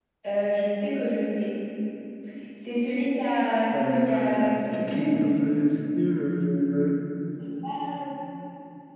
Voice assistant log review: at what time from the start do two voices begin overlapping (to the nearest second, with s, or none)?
4 s